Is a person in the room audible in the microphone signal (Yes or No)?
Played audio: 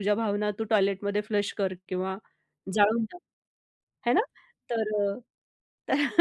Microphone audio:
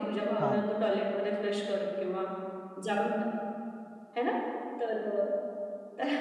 Yes